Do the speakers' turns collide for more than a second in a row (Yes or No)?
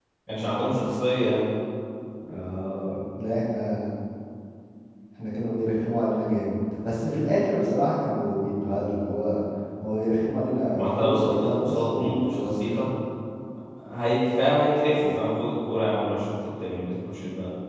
Yes